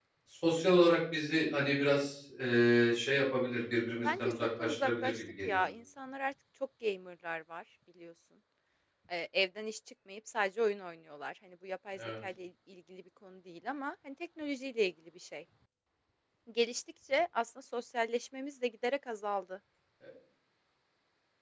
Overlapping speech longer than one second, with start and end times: 4.0-5.6

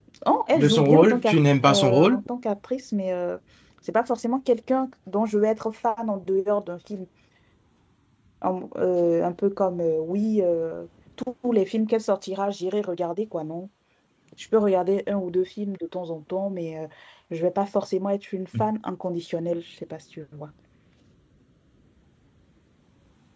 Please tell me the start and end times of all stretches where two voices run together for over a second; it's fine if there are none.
0.5-2.2

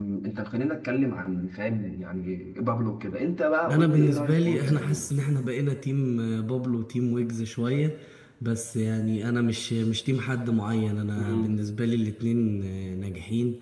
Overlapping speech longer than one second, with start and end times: 3.7-5.1

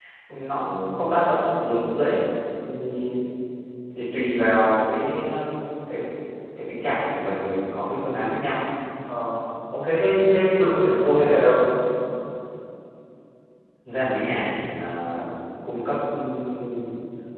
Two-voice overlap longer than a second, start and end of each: none

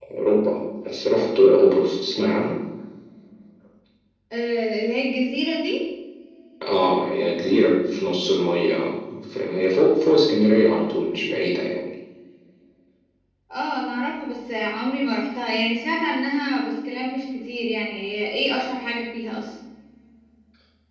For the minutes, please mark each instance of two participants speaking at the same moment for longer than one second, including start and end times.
none

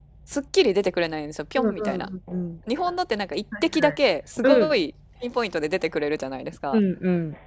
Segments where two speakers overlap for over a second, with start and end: none

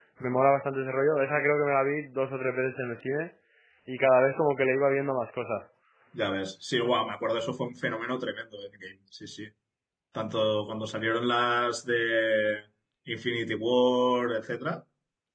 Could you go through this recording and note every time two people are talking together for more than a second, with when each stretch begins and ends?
none

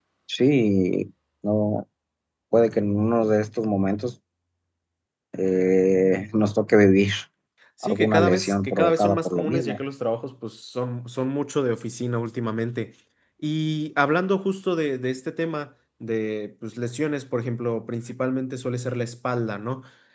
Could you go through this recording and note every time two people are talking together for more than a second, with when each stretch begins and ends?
7.8-9.8

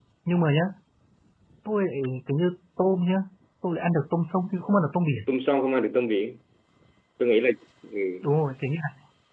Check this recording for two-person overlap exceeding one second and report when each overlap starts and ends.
none

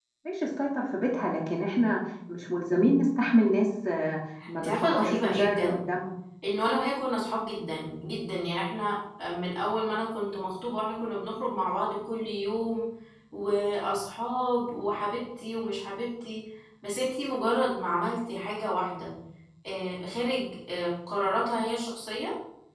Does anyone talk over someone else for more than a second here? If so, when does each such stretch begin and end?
4.6-5.8

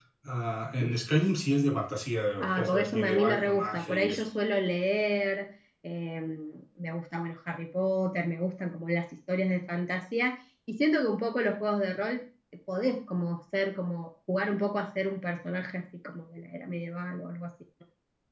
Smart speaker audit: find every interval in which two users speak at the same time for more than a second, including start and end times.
2.4-4.2

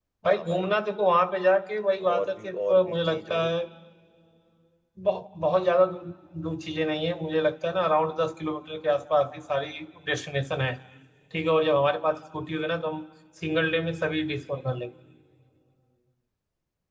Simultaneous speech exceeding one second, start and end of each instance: 2.1-3.5

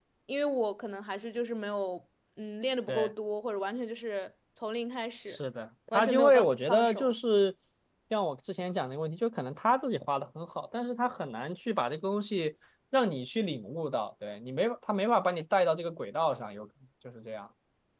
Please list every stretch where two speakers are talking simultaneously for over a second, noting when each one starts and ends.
5.9-7.1

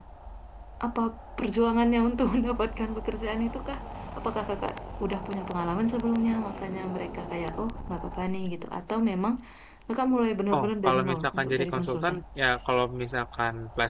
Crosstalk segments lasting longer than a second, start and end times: 10.6-12.2

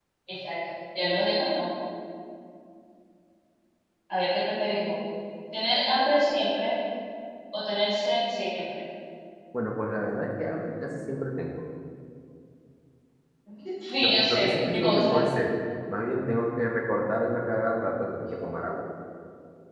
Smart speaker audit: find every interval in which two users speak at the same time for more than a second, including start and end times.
14.0-15.2

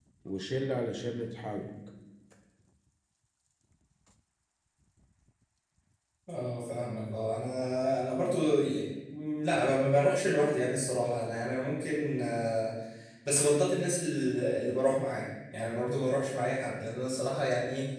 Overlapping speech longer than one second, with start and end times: none

